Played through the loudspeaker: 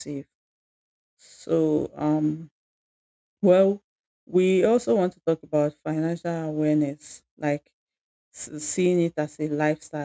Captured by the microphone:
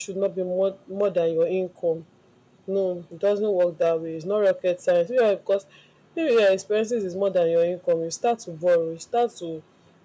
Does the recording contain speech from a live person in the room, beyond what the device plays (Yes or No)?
Yes